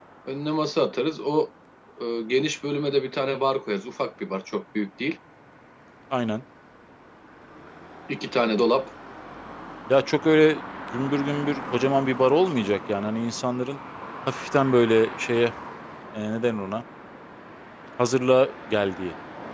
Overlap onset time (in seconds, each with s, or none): none